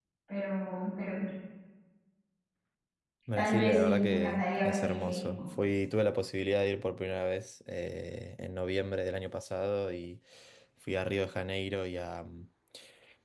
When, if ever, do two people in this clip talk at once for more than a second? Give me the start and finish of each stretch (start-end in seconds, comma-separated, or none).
3.4-5.2